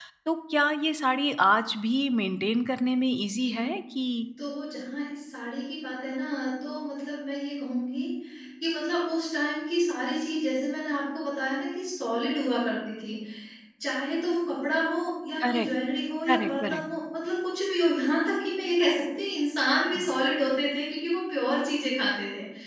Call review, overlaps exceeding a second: none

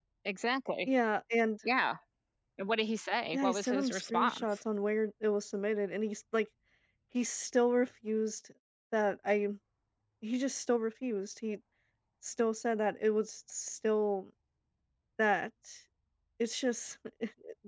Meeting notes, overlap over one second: present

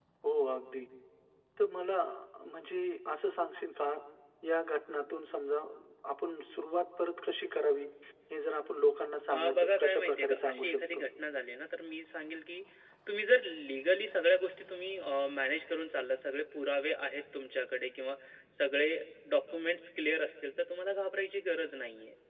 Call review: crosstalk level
present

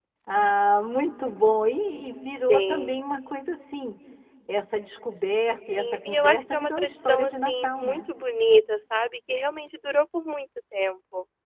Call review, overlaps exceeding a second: present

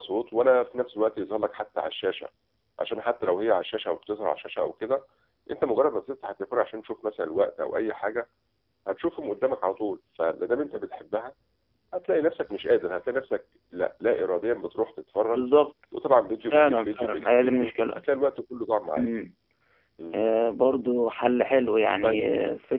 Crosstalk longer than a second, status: present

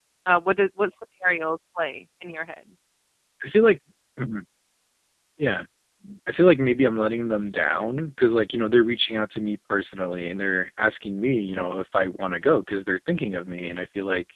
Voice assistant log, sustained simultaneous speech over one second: none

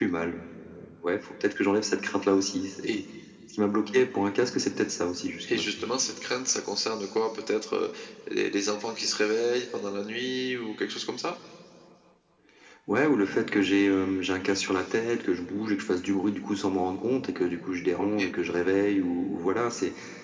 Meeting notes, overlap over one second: none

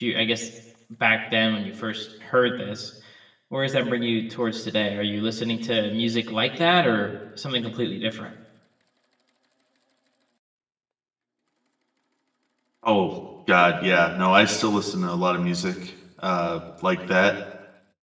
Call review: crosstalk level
none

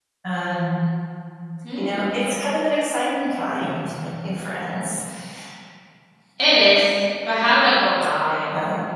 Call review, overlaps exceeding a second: none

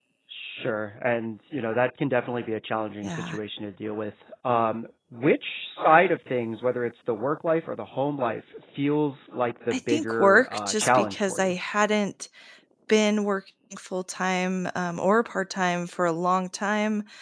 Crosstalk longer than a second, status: present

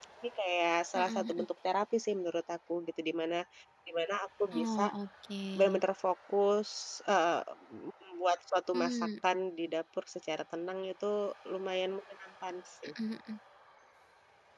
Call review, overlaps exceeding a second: none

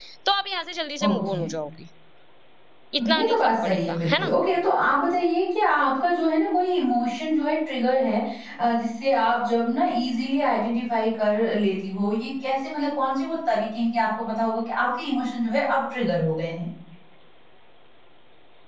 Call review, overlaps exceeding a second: present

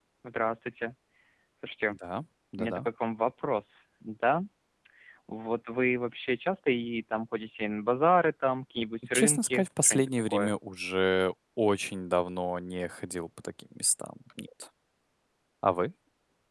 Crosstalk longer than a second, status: present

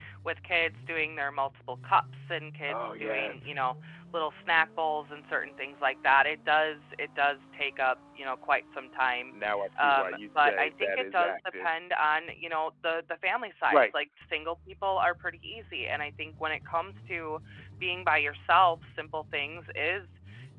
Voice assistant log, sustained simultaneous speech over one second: present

